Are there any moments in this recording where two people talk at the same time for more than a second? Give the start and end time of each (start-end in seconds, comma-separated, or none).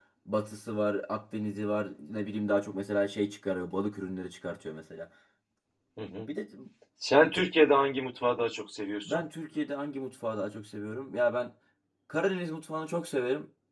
none